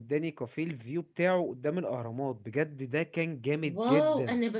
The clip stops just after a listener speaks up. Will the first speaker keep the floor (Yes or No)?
No